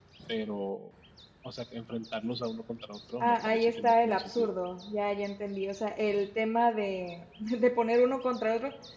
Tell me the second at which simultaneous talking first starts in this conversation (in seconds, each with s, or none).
3.2 s